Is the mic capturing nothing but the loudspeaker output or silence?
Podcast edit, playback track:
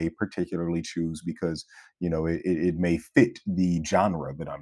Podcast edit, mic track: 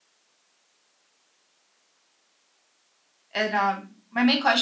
No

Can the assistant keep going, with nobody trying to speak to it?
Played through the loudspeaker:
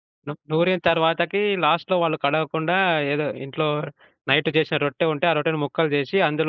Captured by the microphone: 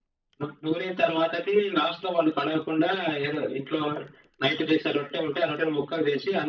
Yes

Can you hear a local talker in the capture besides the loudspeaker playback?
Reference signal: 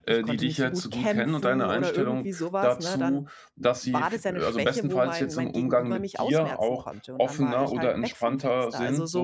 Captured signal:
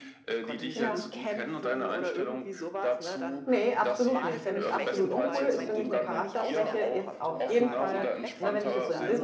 Yes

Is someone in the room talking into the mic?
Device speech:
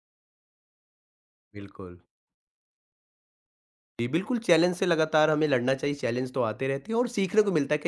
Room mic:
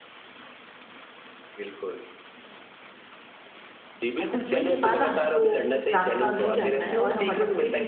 Yes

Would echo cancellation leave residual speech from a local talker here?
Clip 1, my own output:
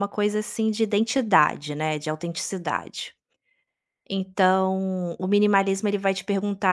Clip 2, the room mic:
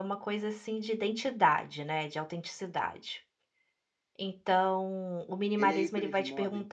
Yes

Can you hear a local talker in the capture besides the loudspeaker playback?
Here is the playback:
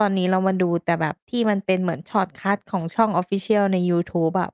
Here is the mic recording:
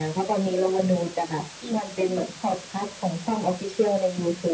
No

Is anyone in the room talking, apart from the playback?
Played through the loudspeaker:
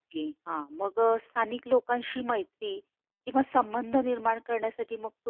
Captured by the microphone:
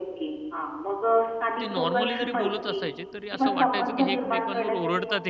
Yes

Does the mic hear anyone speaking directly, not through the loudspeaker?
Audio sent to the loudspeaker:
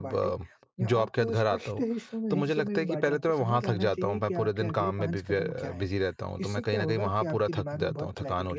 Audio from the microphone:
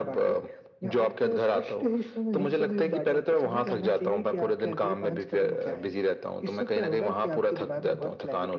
No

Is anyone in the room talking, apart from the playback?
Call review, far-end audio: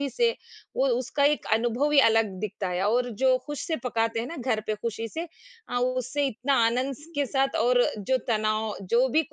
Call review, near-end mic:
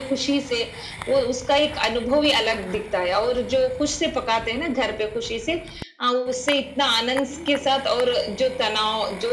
No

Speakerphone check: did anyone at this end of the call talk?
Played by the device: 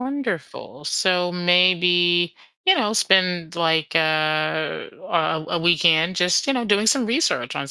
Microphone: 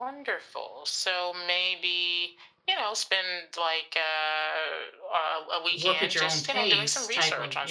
Yes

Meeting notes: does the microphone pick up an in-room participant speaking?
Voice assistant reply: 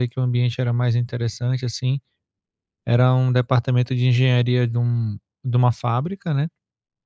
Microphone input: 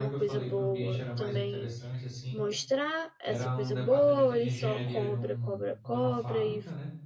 Yes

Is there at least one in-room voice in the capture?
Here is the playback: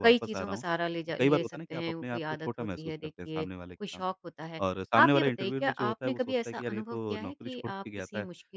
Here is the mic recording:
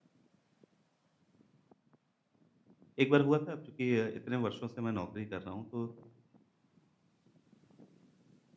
Yes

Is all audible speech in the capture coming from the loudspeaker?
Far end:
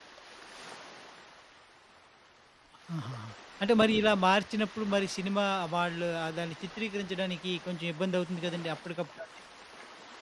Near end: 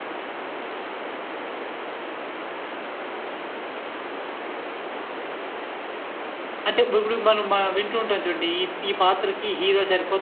No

